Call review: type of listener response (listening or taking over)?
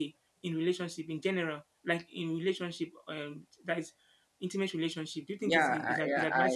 taking over